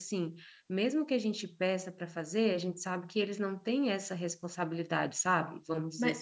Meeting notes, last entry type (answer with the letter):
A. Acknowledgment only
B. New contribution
B